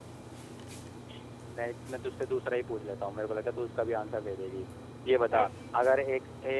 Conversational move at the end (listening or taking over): listening